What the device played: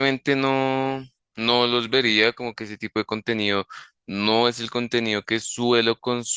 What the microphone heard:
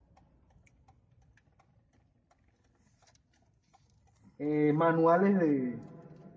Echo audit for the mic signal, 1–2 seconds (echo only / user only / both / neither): neither